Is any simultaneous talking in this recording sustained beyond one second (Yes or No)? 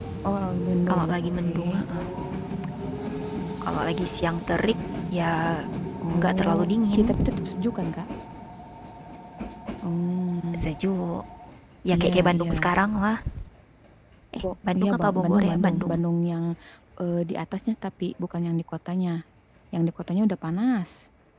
Yes